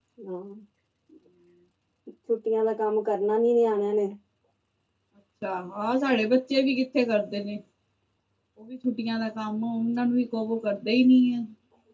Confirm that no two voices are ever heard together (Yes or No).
Yes